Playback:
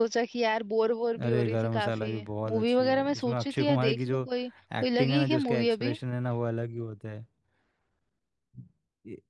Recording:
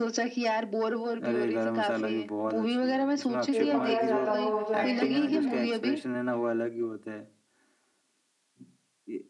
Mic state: both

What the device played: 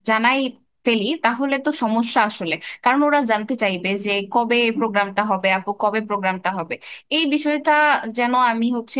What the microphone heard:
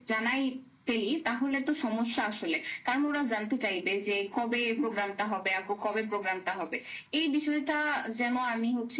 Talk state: echo only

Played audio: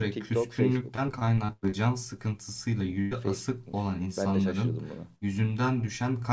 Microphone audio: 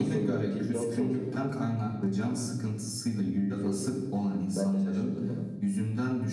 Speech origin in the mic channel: echo only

